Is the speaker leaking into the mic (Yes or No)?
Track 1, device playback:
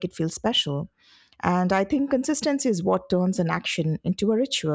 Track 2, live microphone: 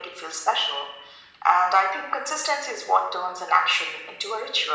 Yes